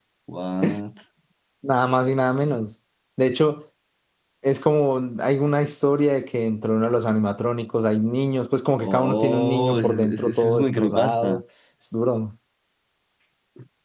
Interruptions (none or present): present